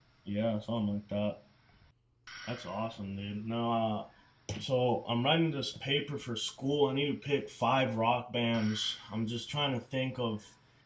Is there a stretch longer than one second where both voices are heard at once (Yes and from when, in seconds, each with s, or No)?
No